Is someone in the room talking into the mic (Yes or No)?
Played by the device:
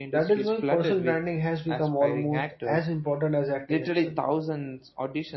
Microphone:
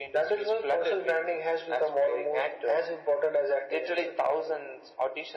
No